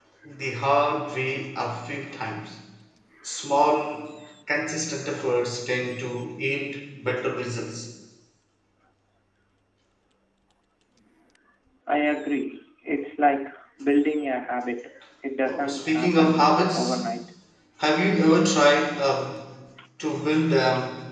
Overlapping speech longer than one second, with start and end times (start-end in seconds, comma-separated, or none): 15.4-17.0